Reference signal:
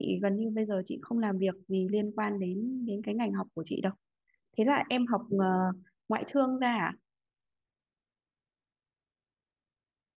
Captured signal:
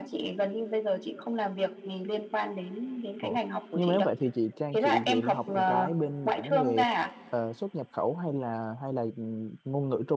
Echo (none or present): present